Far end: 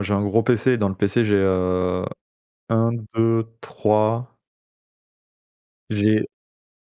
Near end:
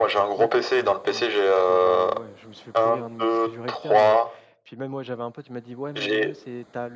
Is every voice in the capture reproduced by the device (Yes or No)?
No